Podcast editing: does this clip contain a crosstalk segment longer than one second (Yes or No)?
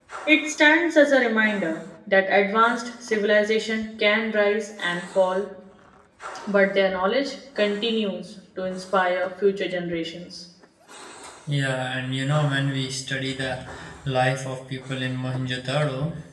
No